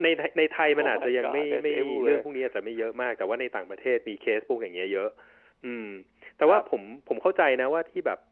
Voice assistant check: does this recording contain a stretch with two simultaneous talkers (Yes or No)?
Yes